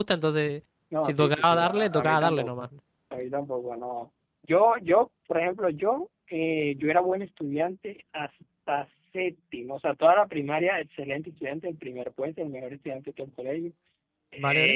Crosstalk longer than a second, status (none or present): present